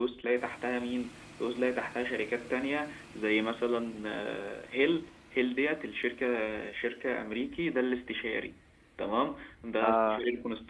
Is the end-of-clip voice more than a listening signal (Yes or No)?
No